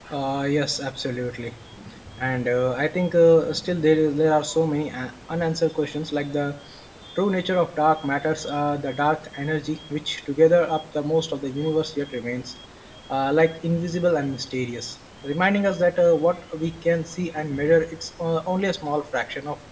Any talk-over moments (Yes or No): No